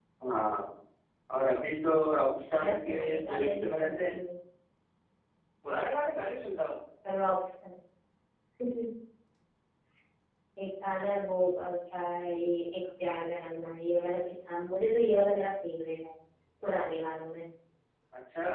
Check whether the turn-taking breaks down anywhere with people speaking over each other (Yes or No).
Yes